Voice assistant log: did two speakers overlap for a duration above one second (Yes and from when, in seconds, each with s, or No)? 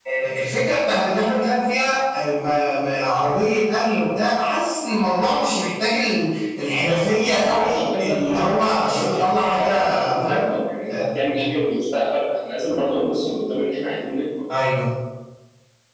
Yes, from 7.4 s